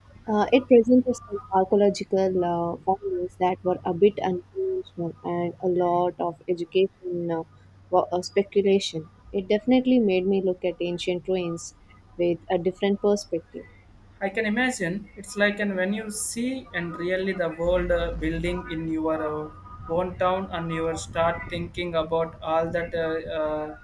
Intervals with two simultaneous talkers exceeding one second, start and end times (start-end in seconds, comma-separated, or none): none